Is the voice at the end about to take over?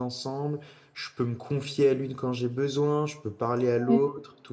No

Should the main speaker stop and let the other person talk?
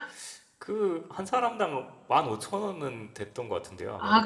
Yes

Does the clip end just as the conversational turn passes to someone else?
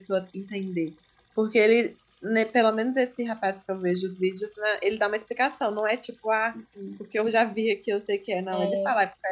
No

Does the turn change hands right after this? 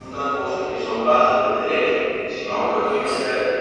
No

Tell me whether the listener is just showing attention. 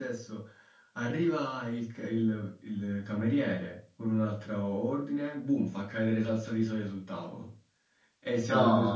Yes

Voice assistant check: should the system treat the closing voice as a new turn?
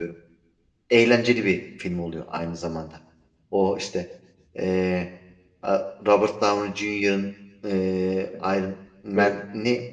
No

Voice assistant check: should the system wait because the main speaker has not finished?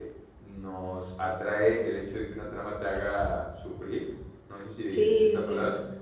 Yes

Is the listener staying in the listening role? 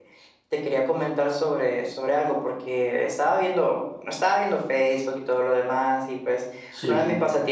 Yes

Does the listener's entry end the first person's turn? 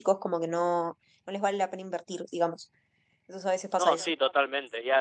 Yes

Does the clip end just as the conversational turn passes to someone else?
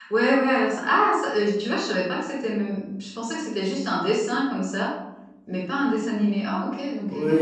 Yes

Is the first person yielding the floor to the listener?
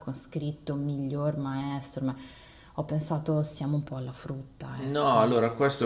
Yes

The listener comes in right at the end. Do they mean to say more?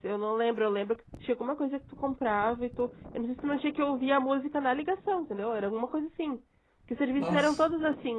No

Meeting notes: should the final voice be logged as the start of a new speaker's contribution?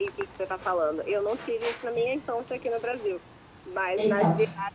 No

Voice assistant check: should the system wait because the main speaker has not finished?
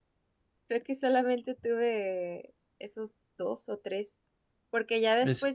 Yes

